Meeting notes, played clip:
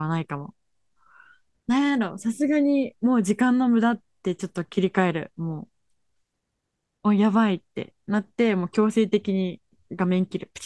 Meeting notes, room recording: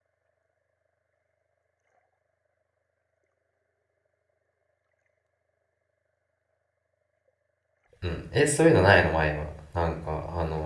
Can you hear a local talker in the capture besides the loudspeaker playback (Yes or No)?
Yes